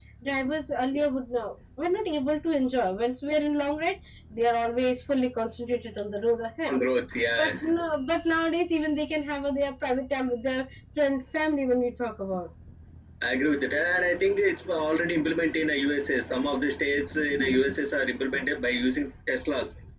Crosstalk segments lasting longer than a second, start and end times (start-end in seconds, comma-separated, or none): none